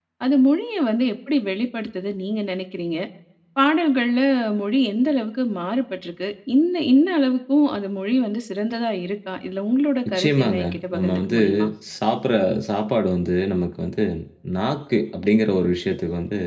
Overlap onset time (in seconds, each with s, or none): 10.1 s